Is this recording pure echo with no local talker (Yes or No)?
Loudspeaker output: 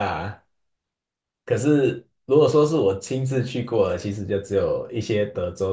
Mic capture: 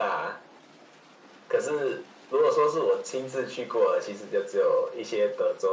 Yes